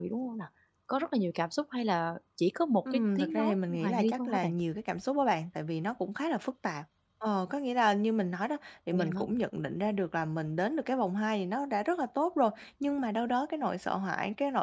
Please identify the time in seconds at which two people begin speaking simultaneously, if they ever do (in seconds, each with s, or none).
2.9 s